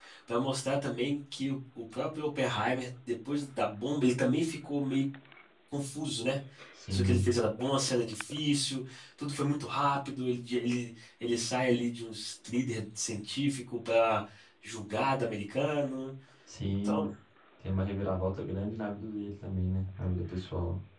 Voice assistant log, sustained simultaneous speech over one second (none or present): none